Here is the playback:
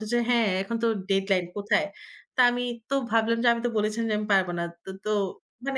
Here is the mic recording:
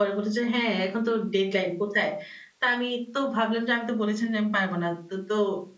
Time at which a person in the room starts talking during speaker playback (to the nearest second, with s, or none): none